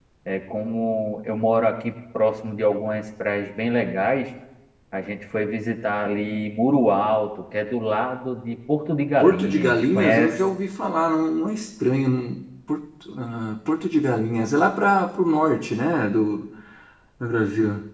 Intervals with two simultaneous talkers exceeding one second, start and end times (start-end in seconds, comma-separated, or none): 9.2-10.4